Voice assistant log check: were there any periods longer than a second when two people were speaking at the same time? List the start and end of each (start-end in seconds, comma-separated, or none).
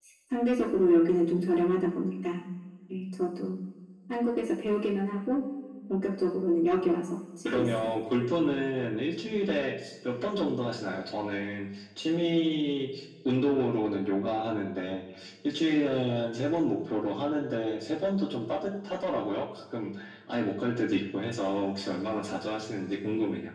none